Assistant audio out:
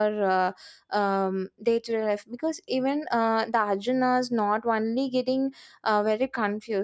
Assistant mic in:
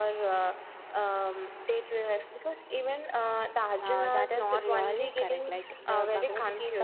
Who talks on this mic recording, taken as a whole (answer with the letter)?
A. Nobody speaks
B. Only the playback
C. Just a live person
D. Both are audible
D